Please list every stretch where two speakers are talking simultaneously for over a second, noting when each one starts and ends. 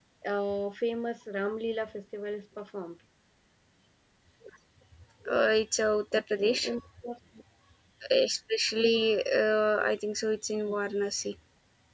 none

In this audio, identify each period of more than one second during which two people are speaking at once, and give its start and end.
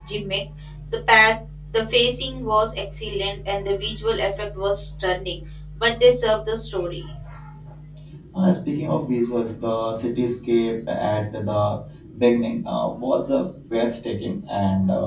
none

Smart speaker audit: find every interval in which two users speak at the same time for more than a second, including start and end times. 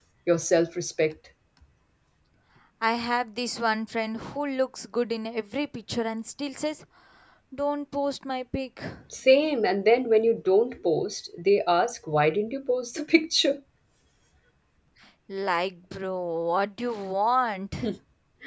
none

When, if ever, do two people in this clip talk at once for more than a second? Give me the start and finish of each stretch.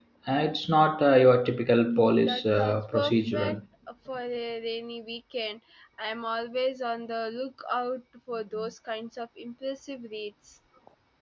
2.2-3.6

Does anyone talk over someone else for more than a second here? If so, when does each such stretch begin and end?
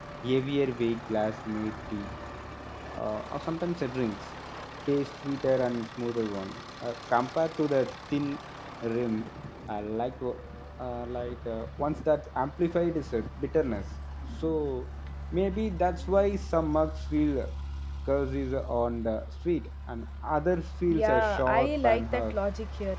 20.9-22.4

